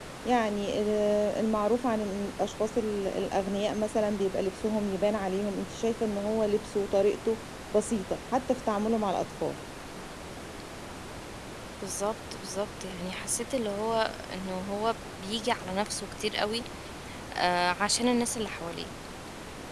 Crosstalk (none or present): none